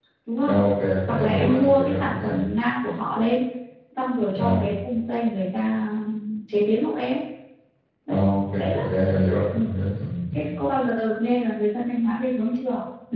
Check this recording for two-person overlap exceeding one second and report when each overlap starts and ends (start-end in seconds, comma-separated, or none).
1.1-2.4